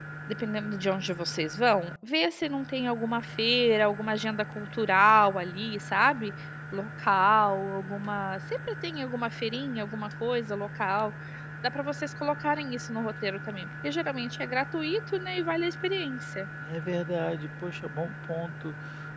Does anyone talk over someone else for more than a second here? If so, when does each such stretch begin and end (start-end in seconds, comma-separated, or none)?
none